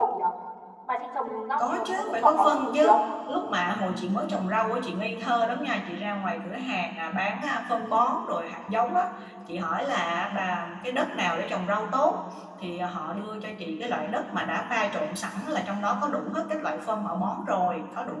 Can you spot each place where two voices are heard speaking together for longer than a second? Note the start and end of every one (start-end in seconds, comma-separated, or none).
1.6-3.0